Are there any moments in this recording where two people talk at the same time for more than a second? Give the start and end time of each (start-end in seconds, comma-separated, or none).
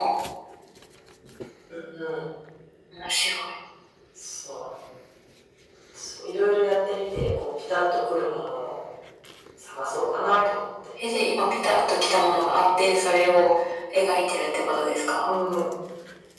none